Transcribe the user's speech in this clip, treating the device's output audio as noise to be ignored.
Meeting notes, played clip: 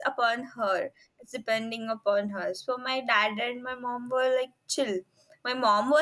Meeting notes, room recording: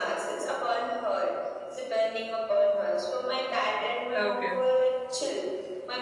Okay.

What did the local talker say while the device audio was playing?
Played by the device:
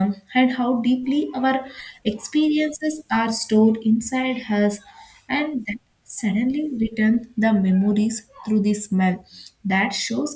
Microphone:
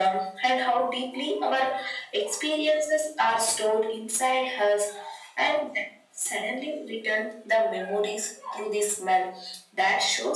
none

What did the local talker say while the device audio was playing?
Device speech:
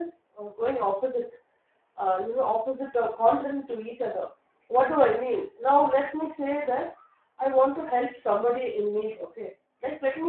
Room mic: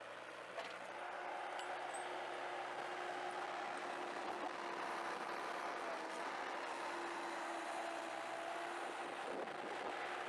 none

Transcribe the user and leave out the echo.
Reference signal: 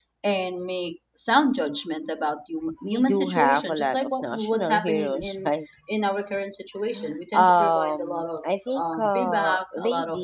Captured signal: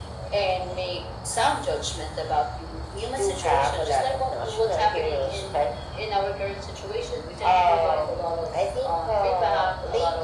none

